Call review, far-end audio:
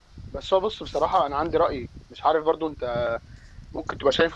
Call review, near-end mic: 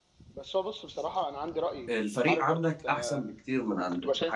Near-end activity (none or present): present